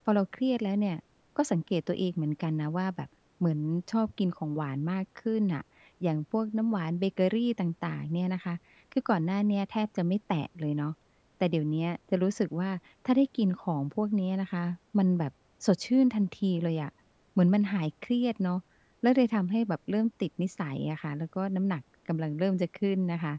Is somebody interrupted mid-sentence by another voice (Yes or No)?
No